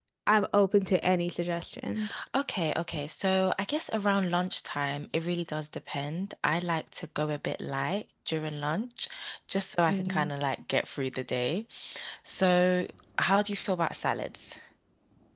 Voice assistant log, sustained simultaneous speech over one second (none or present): none